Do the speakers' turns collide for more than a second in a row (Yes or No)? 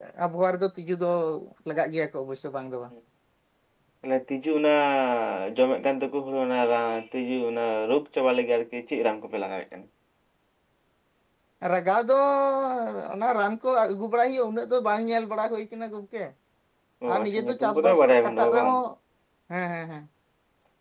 Yes